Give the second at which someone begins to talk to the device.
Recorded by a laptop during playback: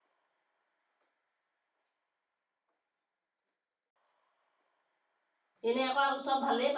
5.7 s

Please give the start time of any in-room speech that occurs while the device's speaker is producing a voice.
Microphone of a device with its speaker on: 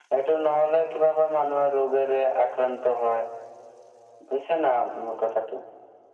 none

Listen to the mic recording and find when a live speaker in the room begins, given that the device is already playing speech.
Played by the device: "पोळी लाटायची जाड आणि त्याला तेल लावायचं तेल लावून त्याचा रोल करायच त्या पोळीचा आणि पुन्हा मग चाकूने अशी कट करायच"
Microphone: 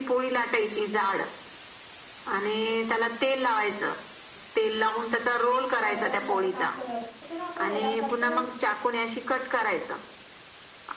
5.8 s

